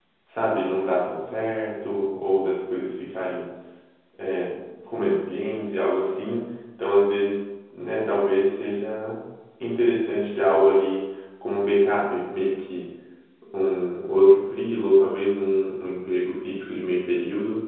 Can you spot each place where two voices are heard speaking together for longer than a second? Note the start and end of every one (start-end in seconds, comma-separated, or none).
none